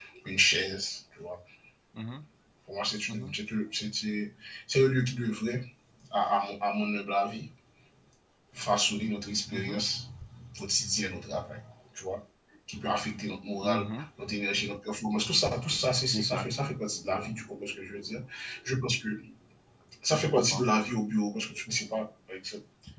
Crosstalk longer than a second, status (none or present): none